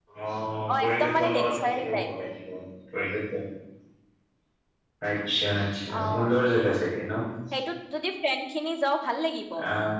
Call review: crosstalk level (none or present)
present